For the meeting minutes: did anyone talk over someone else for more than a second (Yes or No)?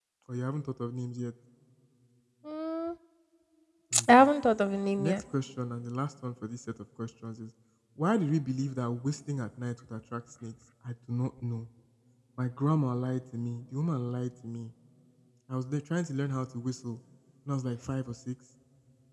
No